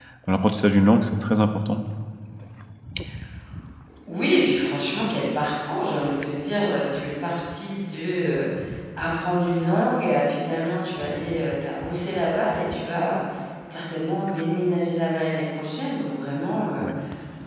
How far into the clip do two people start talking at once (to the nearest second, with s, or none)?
none